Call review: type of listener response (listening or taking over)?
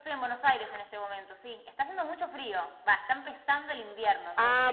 taking over